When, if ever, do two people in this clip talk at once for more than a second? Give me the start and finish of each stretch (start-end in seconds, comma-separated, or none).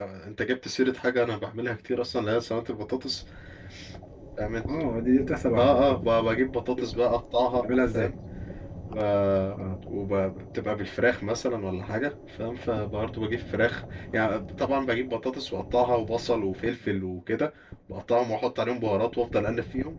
none